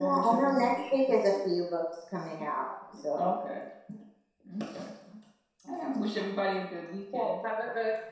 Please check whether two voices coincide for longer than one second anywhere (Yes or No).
No